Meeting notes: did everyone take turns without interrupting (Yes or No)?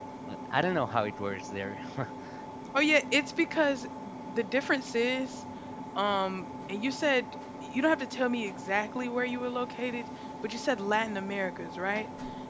Yes